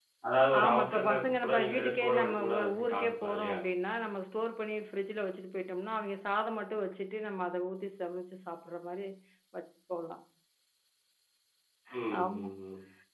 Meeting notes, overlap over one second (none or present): present